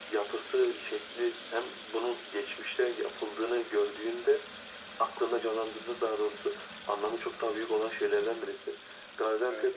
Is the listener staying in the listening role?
Yes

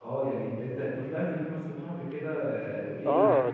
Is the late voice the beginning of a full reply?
Yes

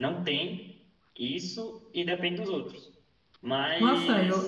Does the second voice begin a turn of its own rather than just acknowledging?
Yes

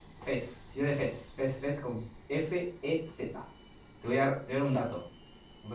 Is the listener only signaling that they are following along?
Yes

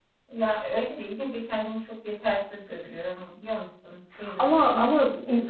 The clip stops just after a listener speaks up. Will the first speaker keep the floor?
No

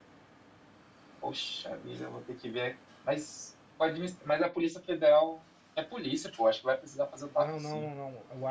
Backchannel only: No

